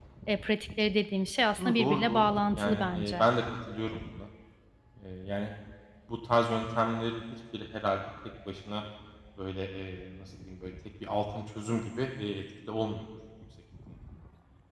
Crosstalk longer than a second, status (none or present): present